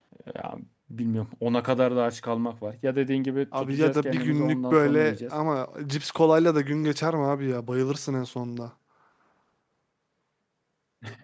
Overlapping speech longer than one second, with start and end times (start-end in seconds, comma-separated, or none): 3.6-5.3